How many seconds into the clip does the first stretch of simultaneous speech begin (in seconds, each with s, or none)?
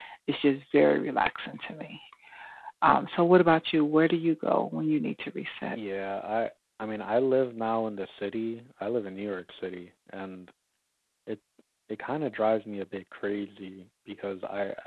none